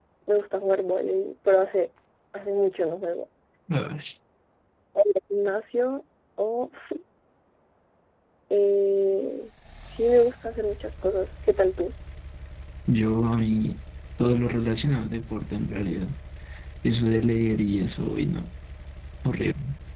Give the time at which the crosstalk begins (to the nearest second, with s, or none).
none